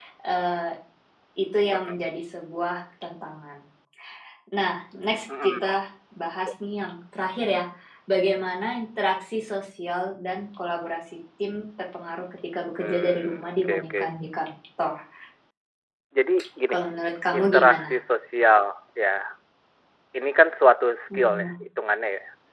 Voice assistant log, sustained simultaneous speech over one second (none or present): present